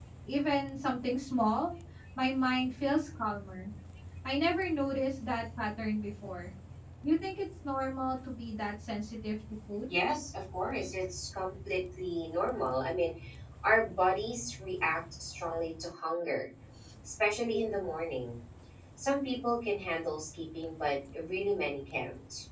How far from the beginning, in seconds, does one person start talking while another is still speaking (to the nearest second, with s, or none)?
none